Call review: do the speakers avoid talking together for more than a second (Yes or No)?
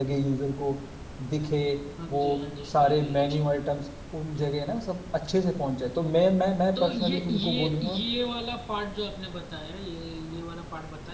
No